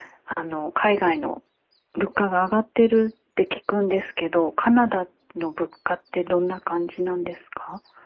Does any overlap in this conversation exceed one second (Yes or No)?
No